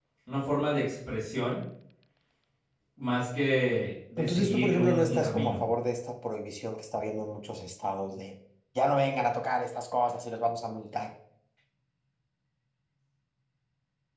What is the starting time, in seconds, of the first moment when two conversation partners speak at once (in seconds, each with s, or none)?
4.2 s